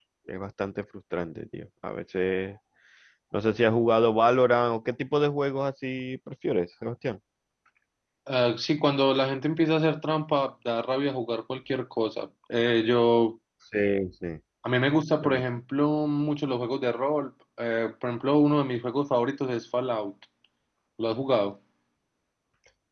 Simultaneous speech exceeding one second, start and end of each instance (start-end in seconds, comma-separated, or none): none